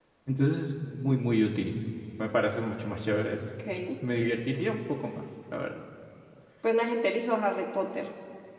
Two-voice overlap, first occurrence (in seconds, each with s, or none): none